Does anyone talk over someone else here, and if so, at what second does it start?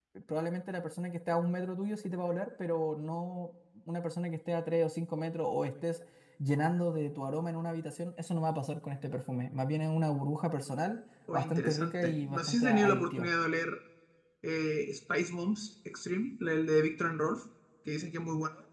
11.3 s

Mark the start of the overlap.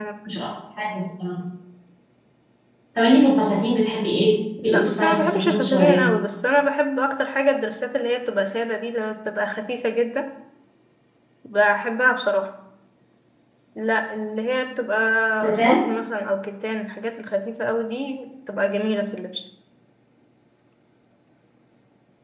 4.6 s

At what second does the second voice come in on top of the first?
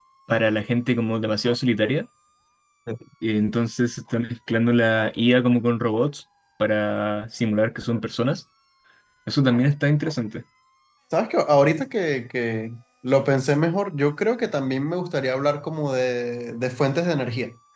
none

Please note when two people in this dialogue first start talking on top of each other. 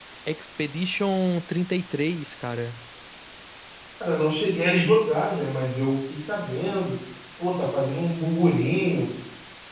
none

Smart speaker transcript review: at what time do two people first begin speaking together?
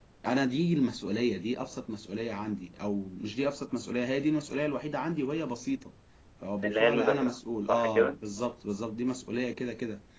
6.6 s

